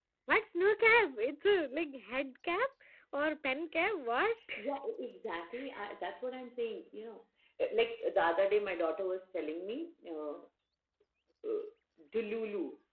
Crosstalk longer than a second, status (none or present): none